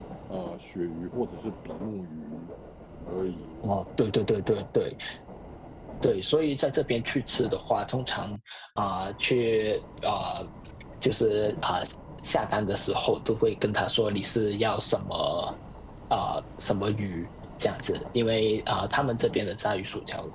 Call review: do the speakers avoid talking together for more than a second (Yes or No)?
Yes